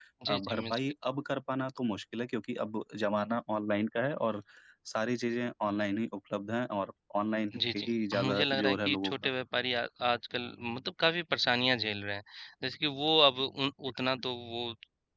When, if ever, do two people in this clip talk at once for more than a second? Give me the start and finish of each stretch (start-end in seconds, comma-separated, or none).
7.7-9.1